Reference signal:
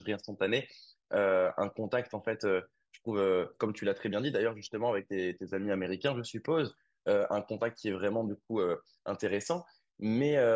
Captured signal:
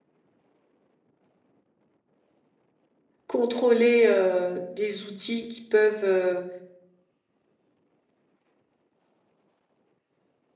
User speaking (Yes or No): Yes